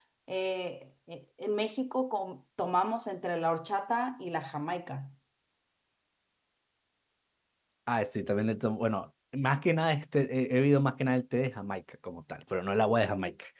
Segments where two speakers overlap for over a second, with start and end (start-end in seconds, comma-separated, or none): none